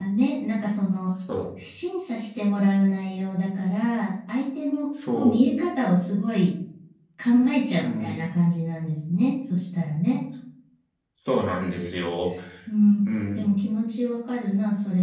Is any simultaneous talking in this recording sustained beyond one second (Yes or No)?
No